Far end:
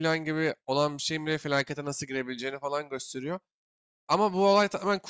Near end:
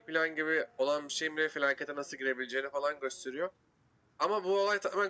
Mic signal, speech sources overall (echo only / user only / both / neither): echo only